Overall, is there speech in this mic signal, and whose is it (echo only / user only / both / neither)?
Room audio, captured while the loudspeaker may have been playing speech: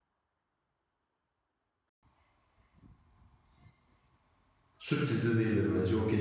user only